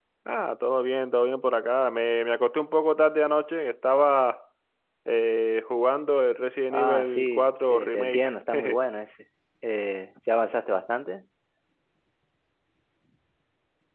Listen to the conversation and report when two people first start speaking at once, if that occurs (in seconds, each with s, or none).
6.7 s